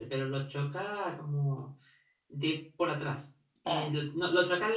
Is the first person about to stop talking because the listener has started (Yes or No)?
No